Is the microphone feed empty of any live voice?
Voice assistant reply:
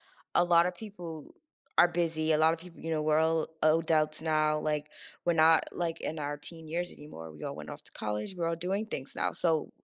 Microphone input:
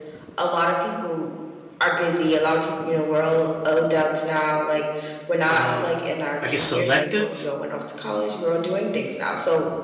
No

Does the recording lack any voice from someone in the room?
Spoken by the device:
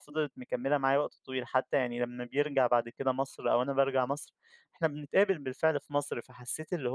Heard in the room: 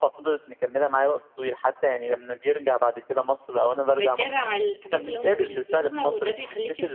No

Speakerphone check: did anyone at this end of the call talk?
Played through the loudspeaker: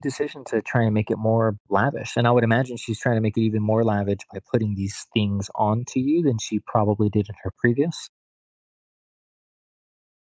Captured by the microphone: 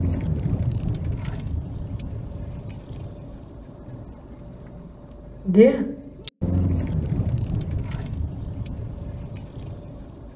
Yes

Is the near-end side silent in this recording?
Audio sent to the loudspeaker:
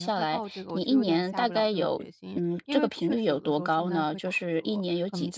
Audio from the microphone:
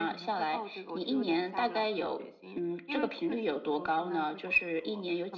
Yes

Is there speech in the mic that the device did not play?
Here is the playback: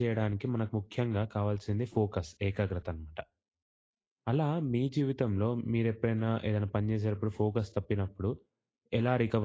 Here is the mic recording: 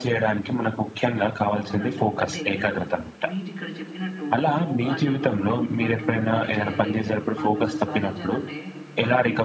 Yes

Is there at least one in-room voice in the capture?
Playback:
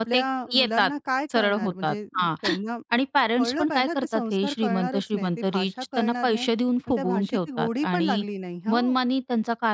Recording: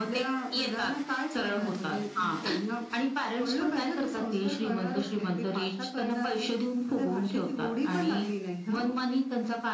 Yes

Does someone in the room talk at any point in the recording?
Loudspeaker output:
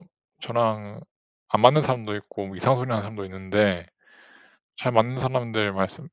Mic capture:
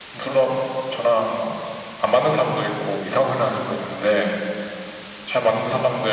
No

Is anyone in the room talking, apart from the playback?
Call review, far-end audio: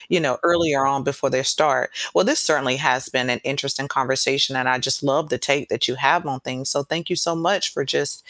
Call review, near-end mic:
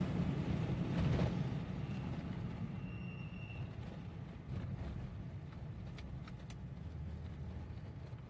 No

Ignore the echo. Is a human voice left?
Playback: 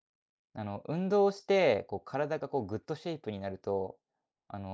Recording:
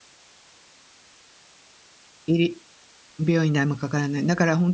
Yes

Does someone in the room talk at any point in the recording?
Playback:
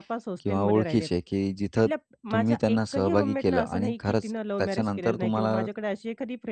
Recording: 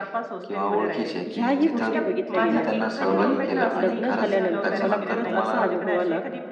Yes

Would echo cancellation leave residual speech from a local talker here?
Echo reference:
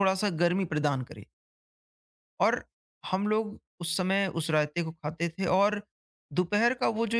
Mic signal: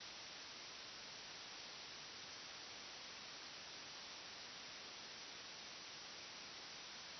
No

